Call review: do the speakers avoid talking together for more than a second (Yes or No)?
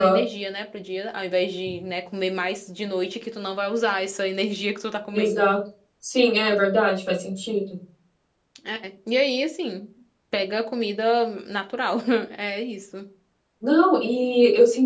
Yes